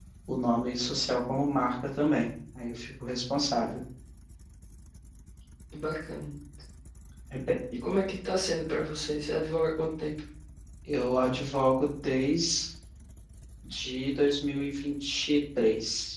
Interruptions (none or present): none